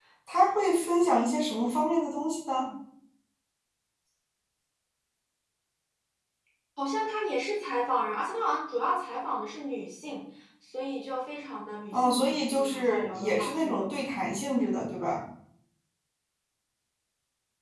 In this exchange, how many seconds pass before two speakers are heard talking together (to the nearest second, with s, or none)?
12 s